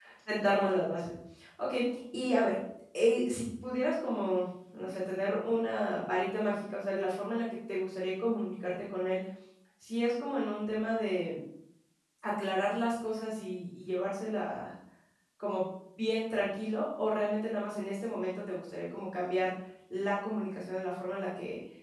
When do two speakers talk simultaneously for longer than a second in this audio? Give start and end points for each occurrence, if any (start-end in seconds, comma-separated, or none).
none